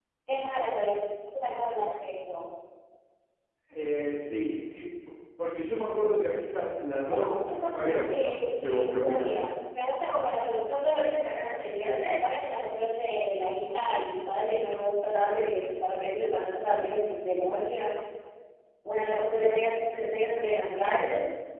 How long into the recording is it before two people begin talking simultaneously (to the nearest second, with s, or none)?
7 s